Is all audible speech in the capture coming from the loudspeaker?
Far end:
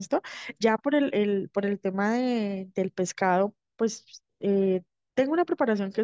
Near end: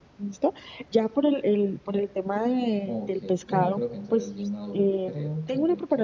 No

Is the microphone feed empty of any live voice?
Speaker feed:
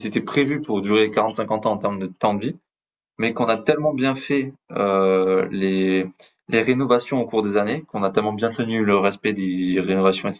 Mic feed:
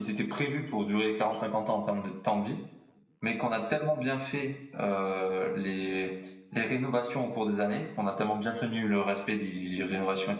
Yes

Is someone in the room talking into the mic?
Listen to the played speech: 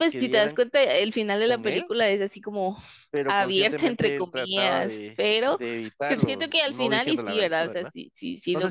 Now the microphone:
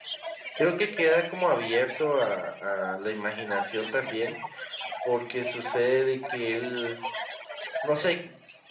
Yes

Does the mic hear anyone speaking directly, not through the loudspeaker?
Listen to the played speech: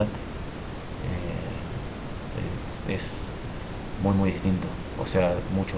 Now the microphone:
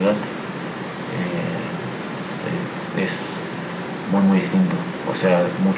No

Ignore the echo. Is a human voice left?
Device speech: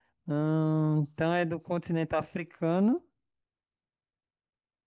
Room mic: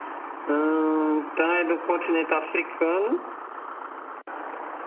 No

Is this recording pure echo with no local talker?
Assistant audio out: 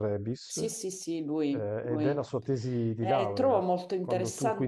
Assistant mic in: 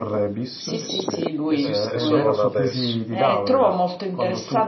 No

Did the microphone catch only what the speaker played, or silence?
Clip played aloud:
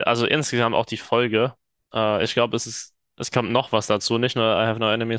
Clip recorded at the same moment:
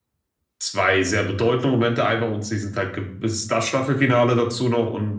No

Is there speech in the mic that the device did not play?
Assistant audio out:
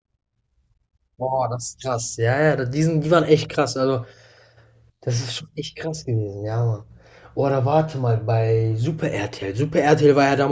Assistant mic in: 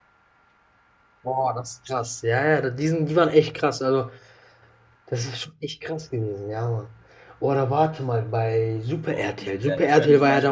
Yes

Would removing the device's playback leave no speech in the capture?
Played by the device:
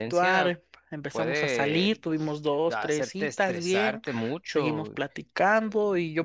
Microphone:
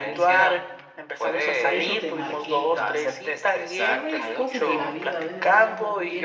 No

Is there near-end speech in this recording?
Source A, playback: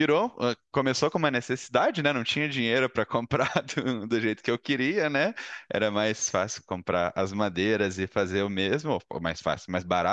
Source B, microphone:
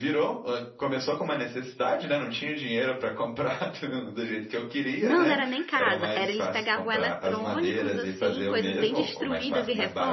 Yes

